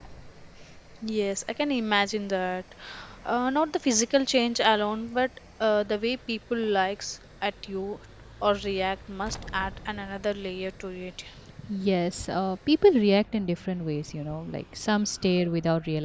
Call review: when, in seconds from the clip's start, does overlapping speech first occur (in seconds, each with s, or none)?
none